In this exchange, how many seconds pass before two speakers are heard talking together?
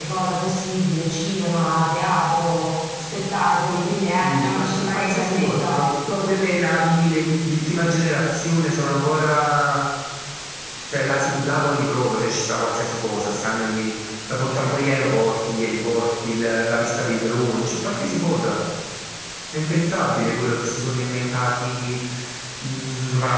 4.2 s

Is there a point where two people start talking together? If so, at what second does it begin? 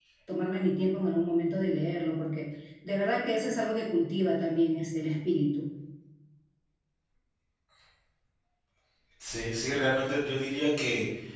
none

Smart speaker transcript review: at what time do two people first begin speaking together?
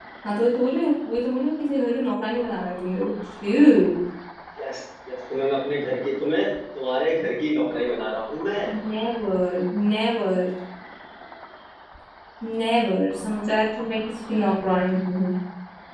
none

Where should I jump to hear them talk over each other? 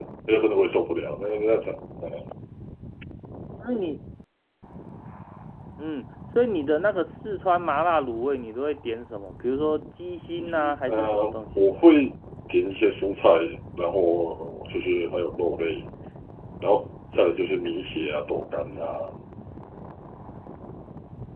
10.4 s

